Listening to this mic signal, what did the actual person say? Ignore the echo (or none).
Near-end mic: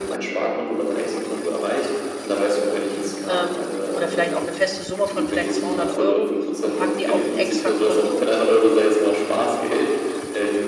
ähm, oder vielleicht auch 'ne feste Summe von vielleicht 200 € und packe die auf 'n extra Konto,